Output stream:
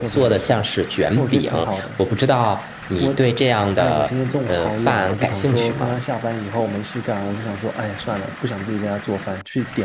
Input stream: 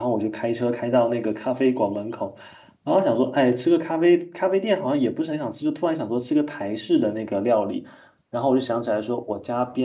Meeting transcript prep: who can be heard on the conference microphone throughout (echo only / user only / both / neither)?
user only